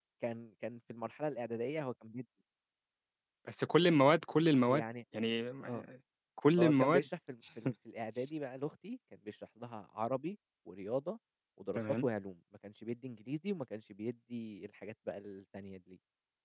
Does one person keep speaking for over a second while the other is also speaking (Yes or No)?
No